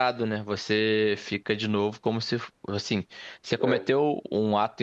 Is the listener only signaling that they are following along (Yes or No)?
Yes